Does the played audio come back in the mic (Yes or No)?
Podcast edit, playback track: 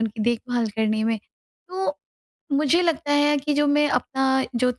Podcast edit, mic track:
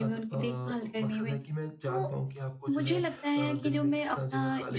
Yes